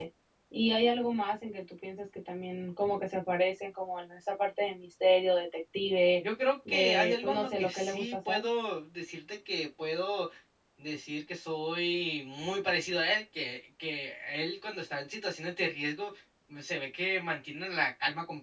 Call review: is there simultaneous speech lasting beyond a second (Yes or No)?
Yes